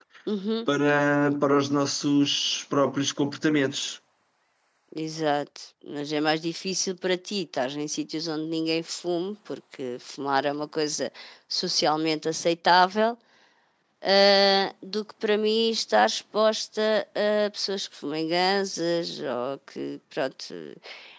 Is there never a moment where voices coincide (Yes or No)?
Yes